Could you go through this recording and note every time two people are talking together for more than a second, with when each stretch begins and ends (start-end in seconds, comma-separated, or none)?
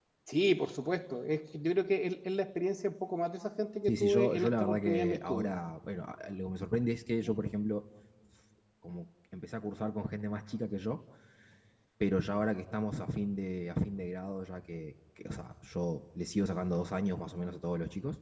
3.9-5.5